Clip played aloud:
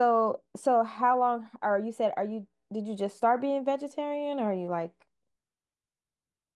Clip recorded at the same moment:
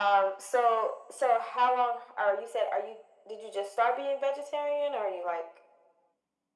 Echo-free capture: No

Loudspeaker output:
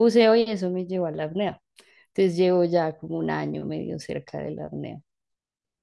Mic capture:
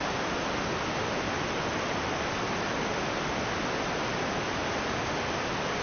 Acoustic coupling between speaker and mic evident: No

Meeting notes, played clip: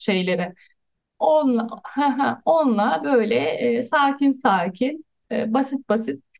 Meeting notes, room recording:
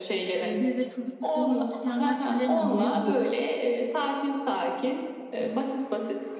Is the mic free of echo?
No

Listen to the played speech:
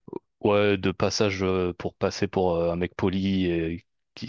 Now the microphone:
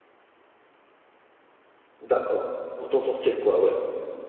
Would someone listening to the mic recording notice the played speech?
No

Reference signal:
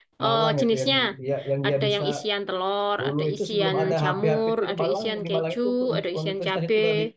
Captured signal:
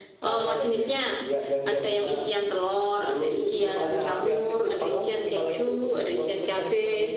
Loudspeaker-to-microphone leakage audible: Yes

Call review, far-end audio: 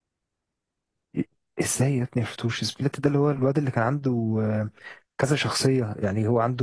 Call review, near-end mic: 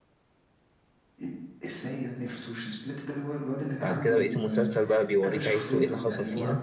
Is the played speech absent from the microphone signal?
No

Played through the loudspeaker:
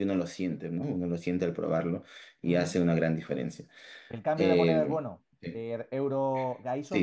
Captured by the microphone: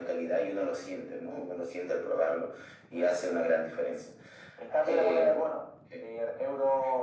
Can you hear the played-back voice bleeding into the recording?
Yes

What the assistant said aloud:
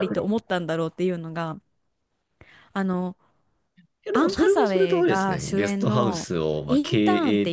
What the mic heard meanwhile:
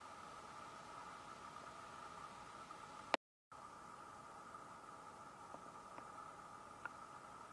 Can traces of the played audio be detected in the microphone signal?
No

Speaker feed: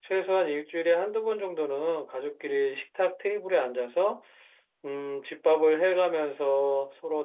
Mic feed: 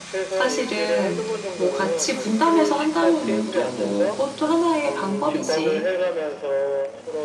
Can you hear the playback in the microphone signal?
Yes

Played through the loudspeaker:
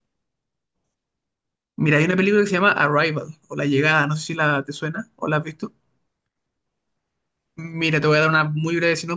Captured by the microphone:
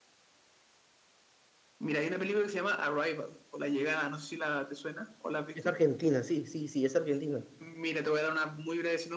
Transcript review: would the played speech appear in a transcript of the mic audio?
Yes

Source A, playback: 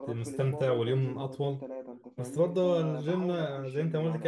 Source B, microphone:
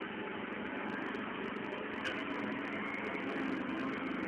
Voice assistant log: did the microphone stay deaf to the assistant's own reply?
Yes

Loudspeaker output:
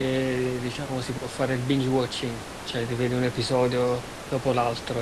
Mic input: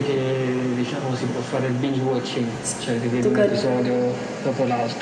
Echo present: Yes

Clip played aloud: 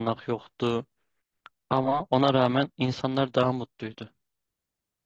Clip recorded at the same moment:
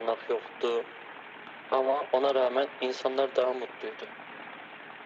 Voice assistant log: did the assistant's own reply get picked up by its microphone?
Yes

